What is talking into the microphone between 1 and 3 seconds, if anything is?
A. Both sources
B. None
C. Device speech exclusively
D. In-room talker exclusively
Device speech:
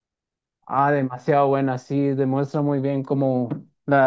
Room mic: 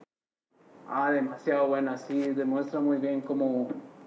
C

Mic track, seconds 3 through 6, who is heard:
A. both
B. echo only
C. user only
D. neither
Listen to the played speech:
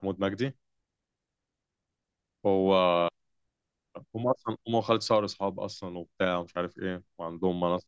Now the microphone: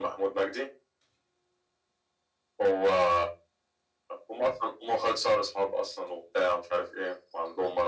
B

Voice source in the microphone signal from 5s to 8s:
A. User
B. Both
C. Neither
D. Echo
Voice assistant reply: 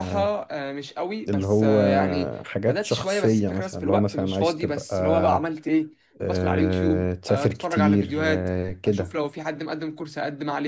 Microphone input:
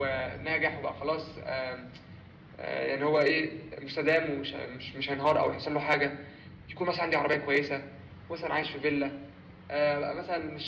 A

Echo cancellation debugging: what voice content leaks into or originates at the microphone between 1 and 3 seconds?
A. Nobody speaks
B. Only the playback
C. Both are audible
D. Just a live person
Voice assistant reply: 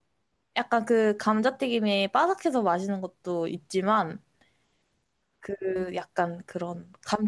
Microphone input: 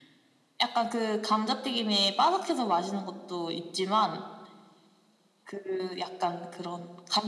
B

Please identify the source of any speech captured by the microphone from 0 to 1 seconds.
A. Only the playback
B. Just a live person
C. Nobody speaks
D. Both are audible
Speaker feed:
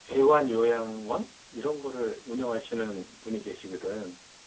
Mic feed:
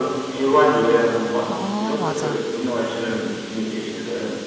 A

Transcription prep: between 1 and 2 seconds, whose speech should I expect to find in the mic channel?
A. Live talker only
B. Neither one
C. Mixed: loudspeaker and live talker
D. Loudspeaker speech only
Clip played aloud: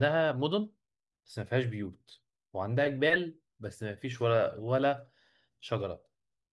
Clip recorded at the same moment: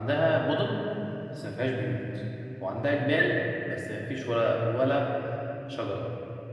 D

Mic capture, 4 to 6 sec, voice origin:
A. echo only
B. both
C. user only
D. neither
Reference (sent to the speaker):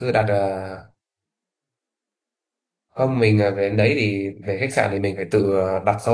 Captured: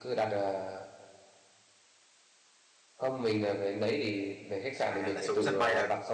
B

